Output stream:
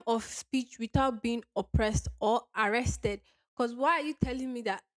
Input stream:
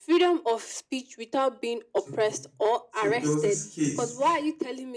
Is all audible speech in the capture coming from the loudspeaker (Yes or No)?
No